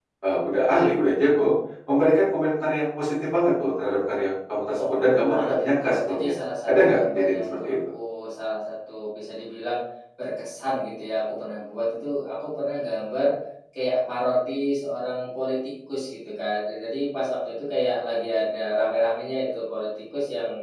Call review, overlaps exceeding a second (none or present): present